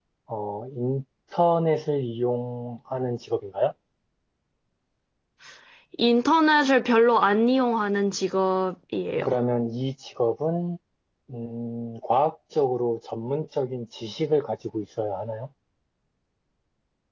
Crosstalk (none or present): none